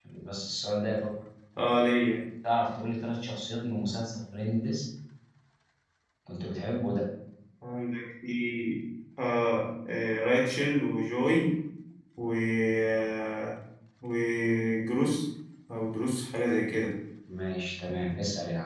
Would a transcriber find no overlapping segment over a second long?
Yes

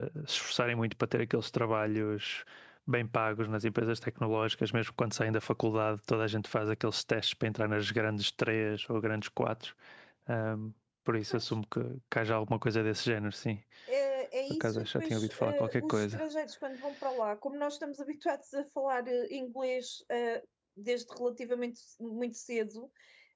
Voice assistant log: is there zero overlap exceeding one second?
No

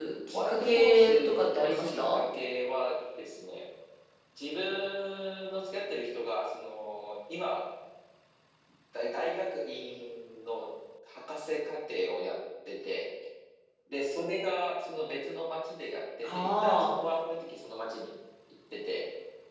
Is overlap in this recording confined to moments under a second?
No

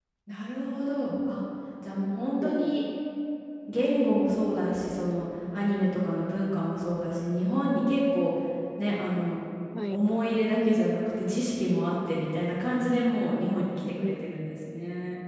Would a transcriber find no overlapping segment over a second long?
Yes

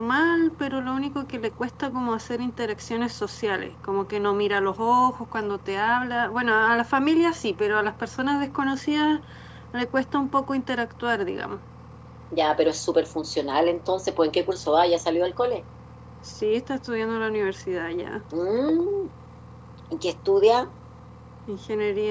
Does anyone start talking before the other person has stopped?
No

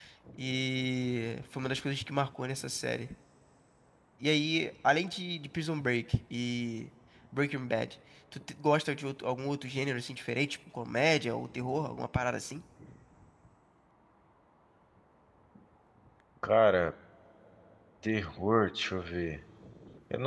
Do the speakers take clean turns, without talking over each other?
Yes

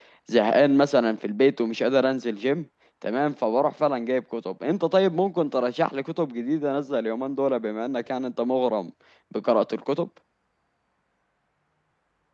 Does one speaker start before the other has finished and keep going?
No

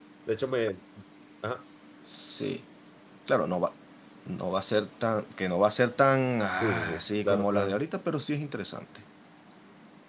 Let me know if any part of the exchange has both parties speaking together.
Yes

